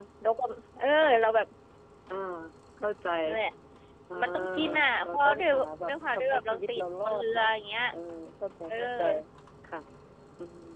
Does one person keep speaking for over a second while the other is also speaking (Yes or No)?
Yes